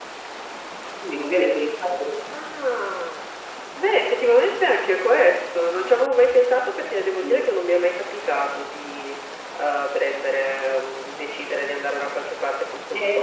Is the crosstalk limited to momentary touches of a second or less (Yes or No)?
Yes